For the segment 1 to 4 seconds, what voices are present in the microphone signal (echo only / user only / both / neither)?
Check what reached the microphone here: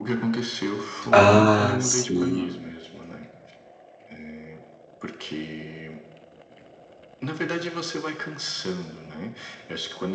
both